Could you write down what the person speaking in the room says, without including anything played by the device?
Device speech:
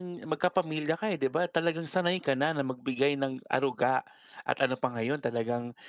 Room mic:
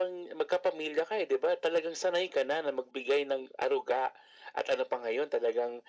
none

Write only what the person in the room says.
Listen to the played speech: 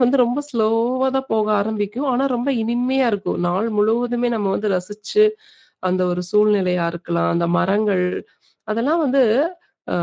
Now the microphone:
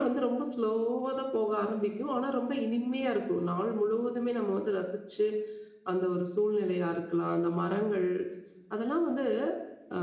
none

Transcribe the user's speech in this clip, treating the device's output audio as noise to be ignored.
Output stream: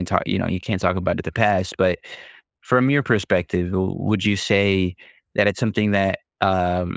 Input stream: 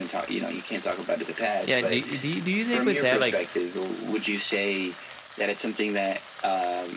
Yeah, do do you do you think with that, like,

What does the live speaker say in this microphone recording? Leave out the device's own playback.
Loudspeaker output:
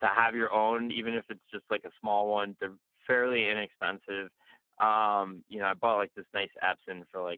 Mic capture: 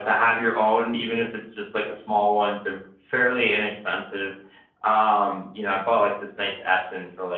none

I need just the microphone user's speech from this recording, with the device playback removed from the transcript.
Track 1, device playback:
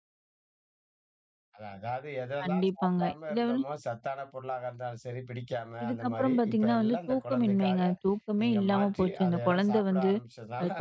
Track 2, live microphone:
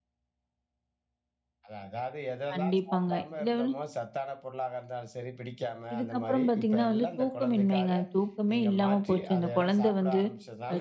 none

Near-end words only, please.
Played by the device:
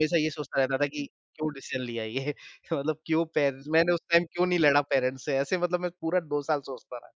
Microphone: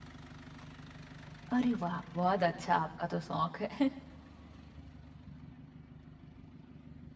अरे वाह! बहुत अच्छा आपका तो शौक है।

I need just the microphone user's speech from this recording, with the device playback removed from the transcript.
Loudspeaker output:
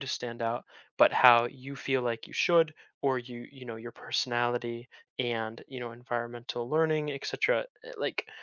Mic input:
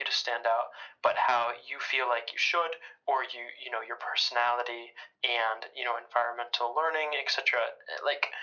none

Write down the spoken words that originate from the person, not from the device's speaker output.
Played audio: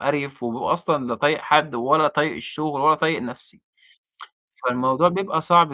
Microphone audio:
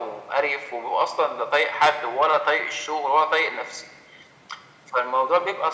none

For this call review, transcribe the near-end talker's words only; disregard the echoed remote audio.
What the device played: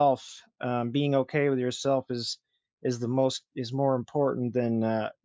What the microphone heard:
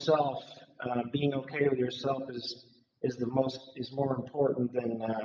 none

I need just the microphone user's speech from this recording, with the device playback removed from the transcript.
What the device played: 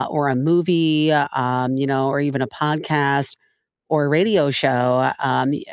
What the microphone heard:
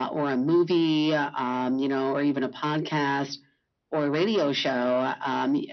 none

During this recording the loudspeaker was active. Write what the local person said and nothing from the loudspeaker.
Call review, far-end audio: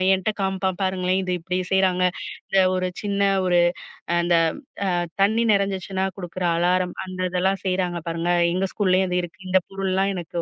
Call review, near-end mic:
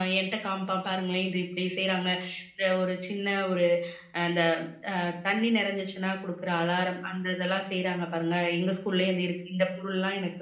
none

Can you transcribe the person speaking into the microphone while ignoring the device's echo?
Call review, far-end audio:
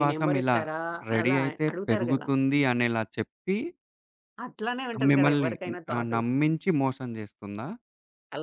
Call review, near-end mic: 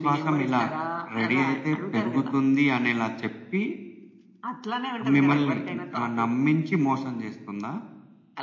none

